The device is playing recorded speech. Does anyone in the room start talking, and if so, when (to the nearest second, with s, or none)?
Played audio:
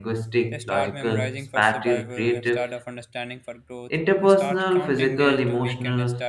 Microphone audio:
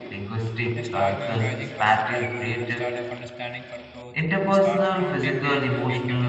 none